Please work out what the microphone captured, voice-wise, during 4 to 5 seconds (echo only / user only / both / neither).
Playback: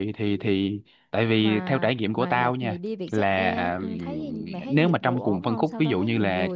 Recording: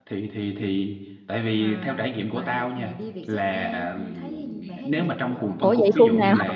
echo only